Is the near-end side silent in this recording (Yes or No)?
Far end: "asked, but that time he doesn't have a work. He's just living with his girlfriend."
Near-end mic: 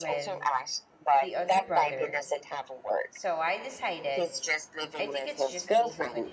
No